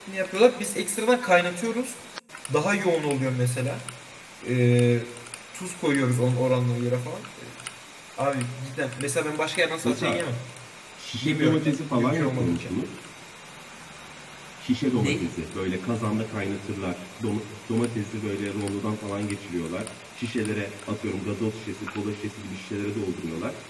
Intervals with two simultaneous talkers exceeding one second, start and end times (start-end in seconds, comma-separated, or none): 11.2-12.7